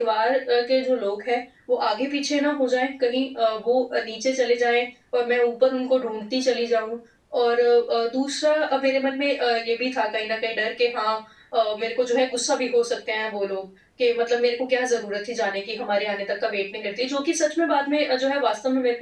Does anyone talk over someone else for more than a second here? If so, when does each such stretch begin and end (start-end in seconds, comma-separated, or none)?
none